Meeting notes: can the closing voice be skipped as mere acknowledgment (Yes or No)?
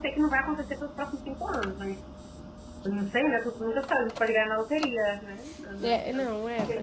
No